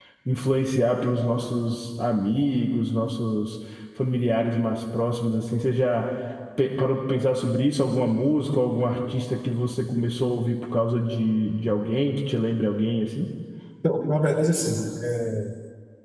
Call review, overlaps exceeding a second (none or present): none